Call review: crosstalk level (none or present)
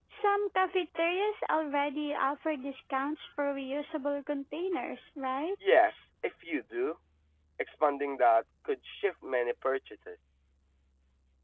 none